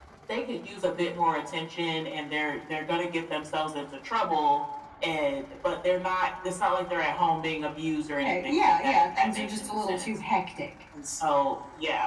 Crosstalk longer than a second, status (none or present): present